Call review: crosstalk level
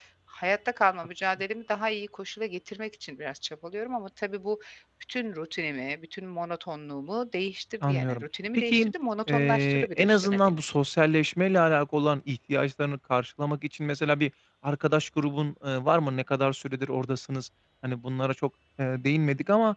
present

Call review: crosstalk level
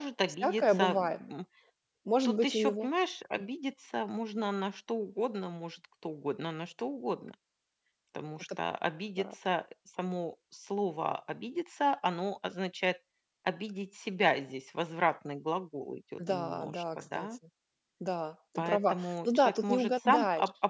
present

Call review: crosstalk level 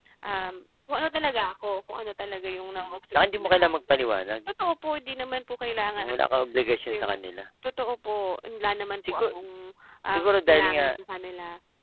present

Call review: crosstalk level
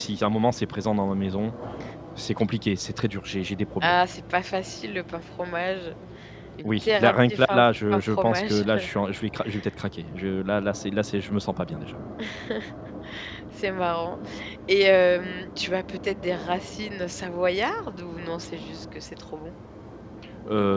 present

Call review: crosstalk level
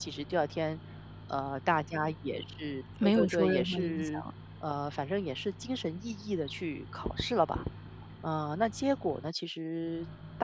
present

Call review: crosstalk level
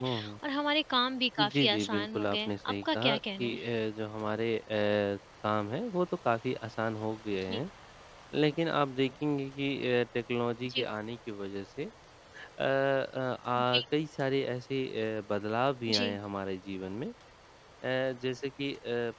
present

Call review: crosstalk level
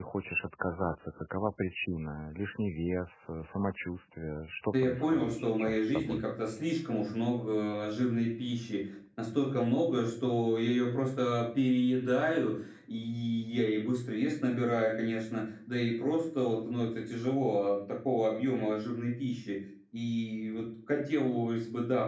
present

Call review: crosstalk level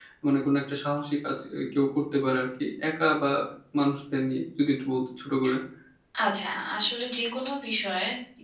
none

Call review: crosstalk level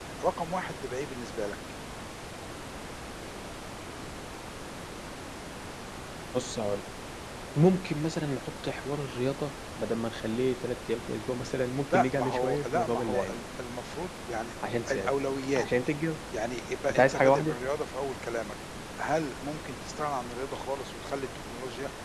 present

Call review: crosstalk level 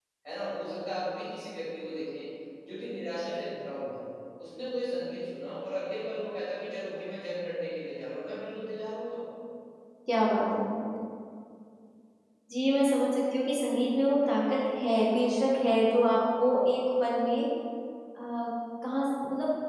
none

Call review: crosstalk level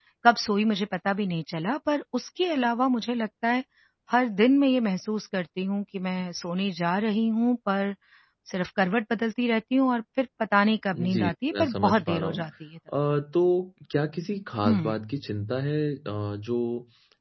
present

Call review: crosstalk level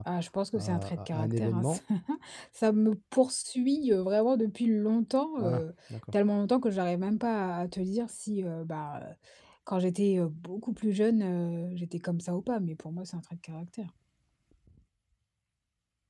present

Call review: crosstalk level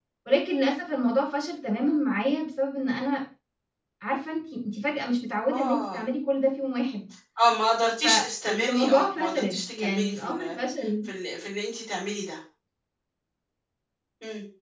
present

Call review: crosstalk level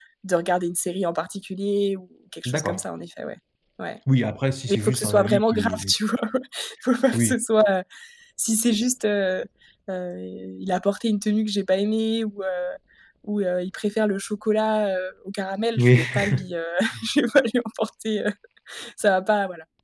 present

